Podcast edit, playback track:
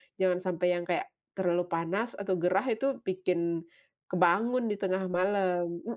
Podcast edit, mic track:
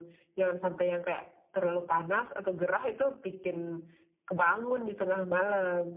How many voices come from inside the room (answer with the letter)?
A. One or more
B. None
B